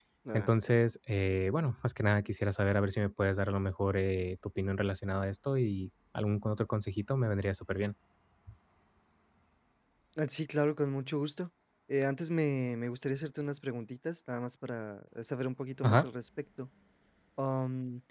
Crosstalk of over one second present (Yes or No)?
No